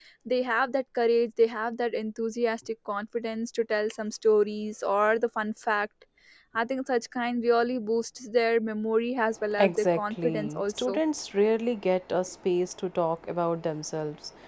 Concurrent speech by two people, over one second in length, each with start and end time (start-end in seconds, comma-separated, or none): 9.6-11.0